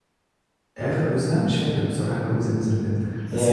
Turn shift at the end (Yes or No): No